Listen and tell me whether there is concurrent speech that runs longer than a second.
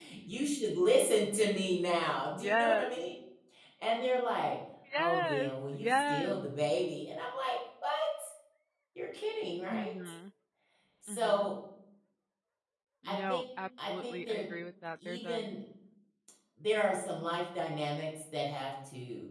Yes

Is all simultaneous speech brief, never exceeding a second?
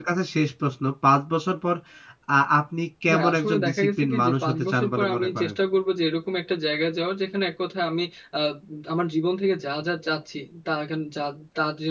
No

